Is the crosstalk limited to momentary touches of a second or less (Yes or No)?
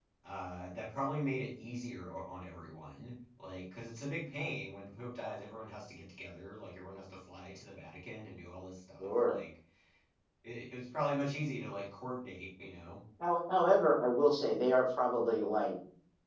Yes